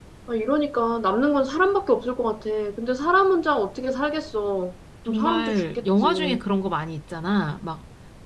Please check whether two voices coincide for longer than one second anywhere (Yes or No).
Yes